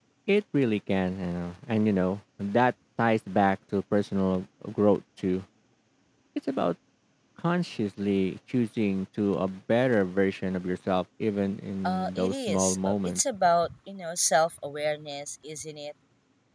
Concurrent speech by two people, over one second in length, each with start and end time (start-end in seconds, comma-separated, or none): 11.8-13.2